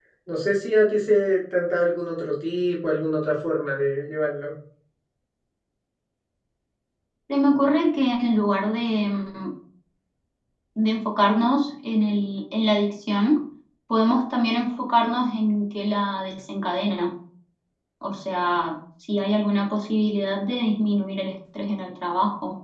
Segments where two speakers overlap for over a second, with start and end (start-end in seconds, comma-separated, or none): none